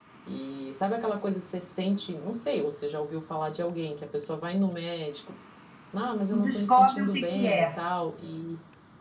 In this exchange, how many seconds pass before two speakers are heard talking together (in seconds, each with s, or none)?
6.3 s